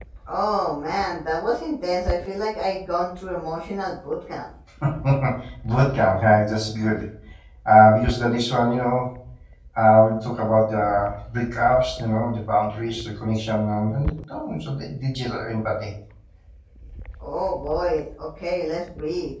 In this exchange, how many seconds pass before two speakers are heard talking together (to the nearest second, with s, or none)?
none